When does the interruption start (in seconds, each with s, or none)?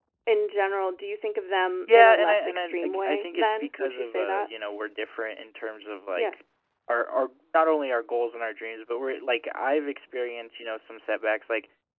1.8 s